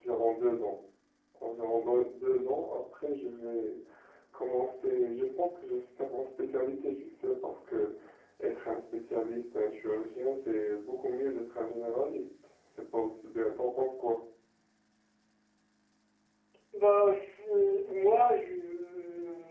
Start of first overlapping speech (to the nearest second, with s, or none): none